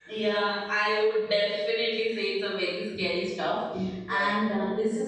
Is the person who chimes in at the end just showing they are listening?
Yes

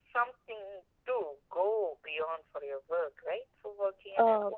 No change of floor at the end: No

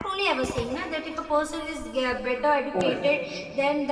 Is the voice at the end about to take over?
No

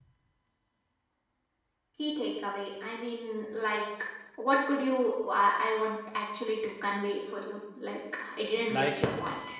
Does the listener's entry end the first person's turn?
Yes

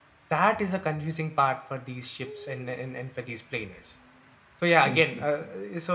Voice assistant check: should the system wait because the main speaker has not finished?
Yes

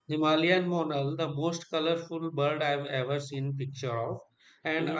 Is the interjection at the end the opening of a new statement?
No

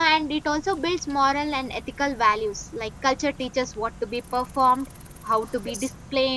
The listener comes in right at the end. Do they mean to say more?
No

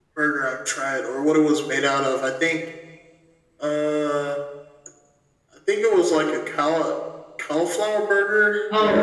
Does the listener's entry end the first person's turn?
Yes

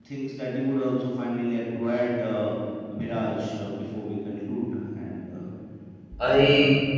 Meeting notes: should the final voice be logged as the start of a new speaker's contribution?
Yes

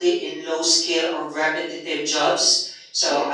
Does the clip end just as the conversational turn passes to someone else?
No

